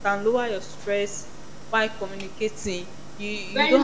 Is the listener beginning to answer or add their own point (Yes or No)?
No